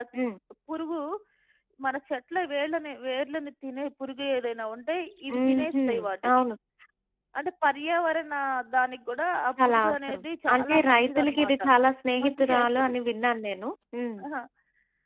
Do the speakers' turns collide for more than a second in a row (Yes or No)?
Yes